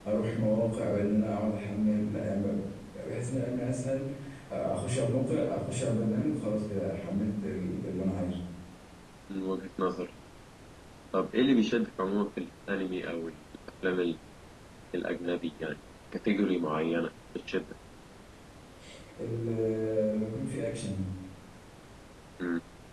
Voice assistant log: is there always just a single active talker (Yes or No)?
Yes